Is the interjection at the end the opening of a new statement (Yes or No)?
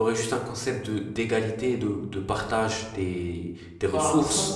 Yes